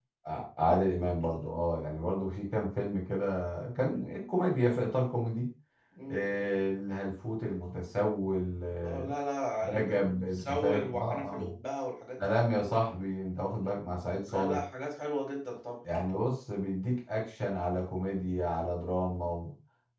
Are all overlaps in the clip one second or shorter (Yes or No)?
No